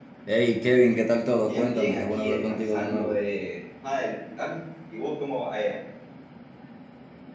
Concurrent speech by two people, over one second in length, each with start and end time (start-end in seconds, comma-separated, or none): 1.4-3.2